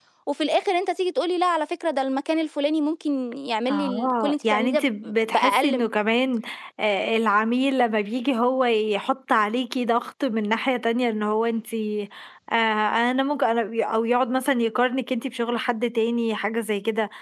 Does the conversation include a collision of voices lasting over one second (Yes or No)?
Yes